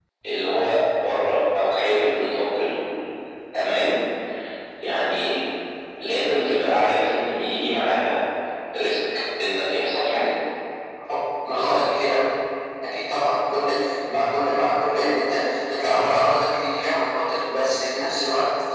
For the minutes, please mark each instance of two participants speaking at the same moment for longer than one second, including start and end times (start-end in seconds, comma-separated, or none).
none